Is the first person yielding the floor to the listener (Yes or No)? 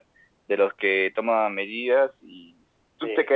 No